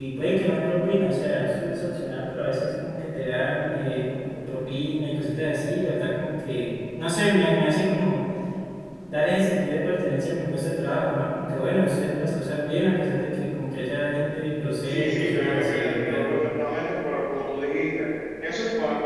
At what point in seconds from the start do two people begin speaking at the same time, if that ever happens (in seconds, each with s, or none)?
14.8 s